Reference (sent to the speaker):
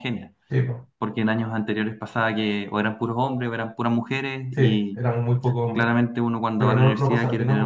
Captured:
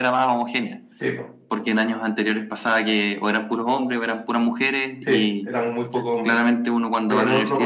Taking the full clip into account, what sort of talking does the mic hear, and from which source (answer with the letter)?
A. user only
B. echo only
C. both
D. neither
B